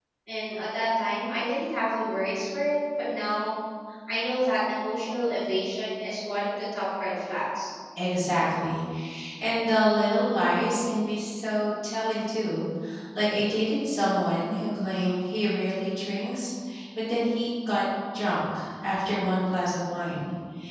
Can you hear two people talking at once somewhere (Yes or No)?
No